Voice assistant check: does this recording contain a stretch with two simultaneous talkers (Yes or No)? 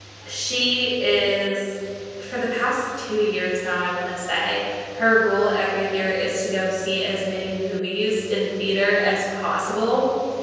No